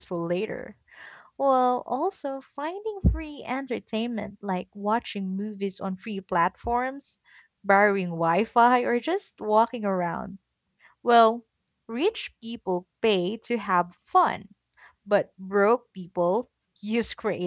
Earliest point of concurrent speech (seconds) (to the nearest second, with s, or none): none